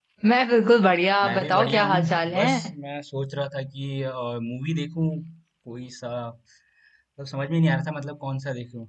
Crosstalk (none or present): present